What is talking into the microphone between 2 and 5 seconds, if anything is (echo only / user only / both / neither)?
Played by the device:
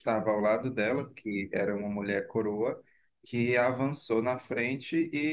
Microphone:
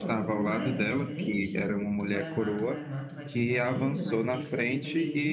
both